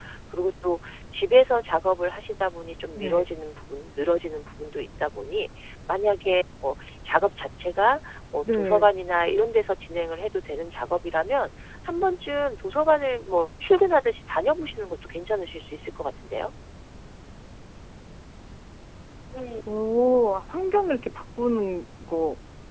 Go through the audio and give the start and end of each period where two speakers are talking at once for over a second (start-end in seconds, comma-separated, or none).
none